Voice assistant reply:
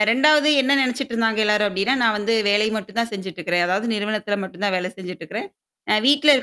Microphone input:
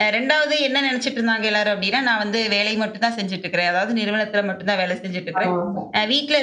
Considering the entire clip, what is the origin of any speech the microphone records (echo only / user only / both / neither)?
both